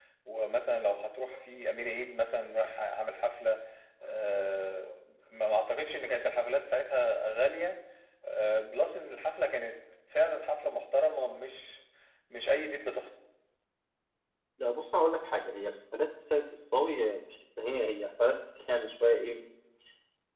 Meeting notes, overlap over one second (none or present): none